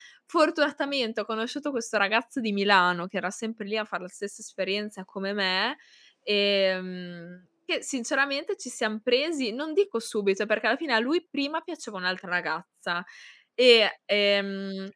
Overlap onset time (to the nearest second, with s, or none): none